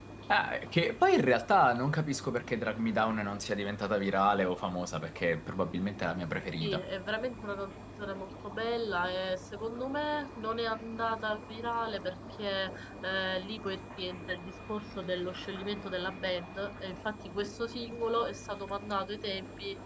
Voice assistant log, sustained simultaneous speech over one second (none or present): none